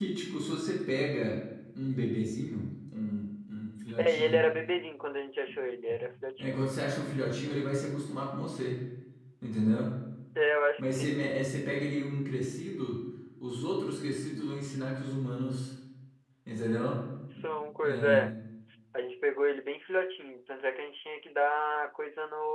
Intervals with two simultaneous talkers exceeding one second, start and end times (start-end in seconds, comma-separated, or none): none